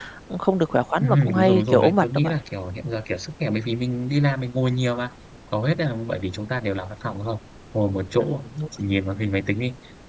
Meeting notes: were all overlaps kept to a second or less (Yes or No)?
No